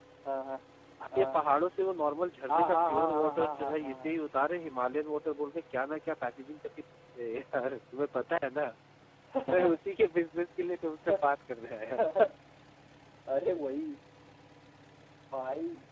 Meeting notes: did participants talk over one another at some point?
Yes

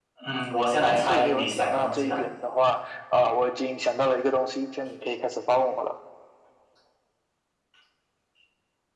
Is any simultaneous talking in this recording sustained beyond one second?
Yes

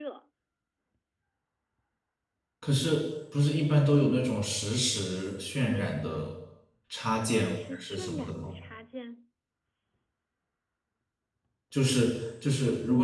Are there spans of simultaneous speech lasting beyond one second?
Yes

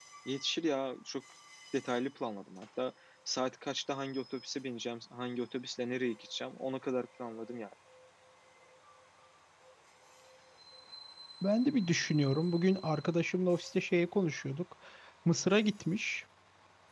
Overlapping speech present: No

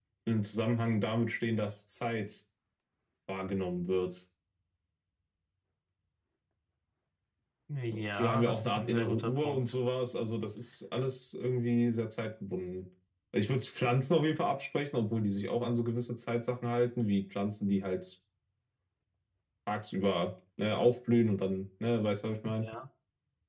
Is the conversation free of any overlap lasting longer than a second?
No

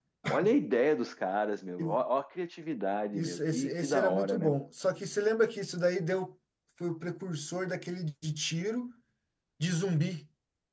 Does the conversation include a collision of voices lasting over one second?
Yes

